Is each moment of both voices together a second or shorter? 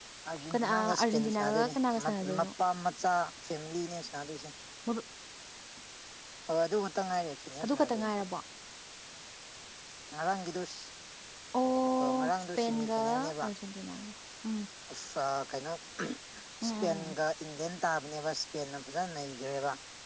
No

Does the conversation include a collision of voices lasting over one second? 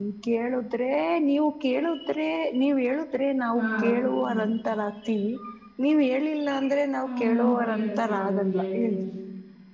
Yes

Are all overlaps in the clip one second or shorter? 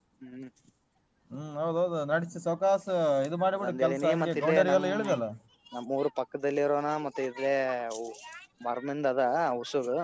No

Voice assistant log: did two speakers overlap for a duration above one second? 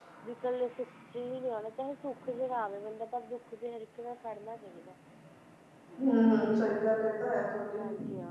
No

